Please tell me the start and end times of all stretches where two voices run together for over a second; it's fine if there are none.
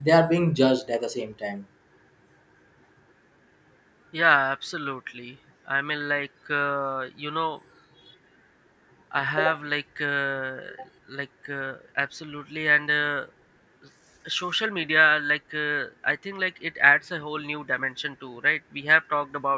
none

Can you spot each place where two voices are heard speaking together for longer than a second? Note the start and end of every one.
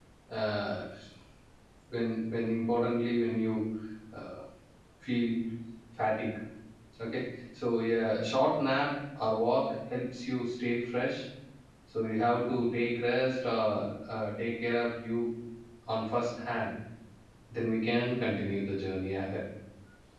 none

